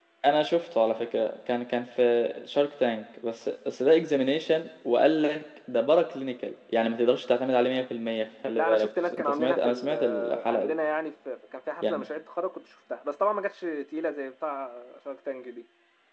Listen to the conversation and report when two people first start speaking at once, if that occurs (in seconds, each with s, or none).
8.6 s